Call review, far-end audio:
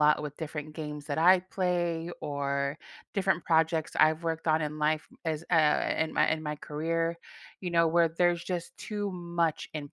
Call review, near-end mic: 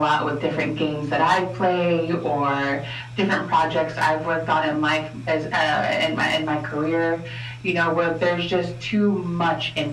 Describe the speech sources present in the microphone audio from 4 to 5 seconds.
echo only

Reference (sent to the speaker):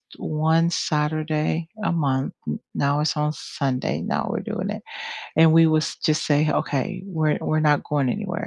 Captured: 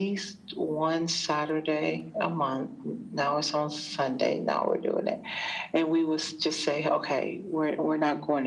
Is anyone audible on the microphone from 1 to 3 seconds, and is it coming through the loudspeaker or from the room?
echo only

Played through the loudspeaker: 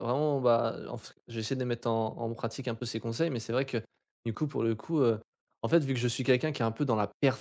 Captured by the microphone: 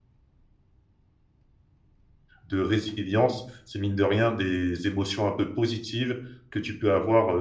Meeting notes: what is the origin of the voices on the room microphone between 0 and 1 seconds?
neither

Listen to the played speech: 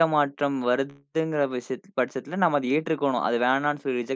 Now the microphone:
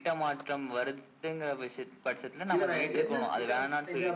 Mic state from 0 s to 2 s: echo only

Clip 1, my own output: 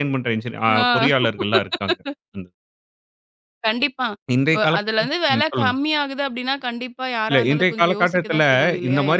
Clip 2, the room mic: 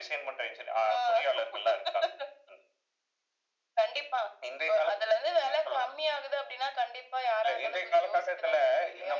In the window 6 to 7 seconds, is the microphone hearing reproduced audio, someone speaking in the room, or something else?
echo only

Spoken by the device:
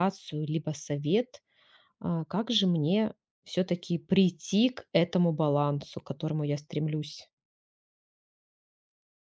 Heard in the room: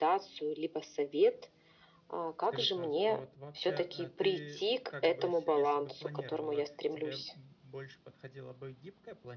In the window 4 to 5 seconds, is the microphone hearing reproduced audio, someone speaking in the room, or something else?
both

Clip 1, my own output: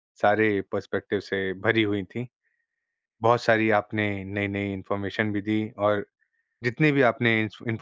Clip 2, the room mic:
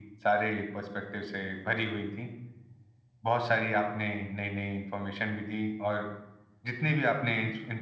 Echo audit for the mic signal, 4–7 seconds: echo only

